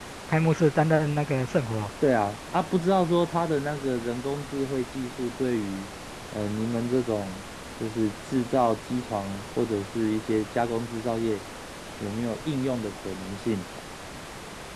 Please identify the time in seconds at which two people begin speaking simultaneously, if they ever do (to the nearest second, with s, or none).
none